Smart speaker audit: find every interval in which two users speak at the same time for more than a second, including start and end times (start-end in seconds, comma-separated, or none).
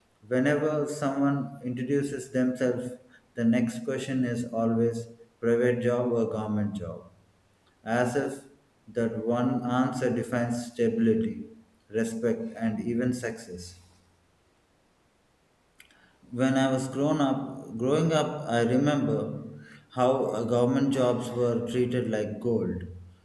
none